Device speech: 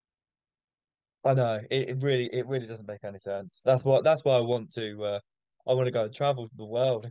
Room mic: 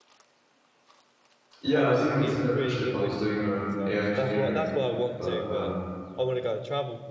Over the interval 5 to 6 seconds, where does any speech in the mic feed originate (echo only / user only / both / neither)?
both